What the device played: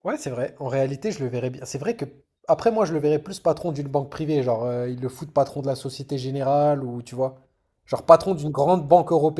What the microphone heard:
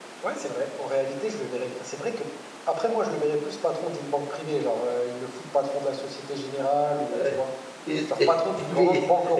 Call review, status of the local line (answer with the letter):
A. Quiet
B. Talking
B